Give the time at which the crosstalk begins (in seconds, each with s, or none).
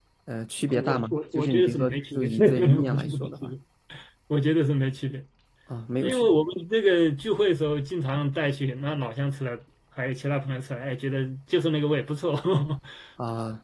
0.7 s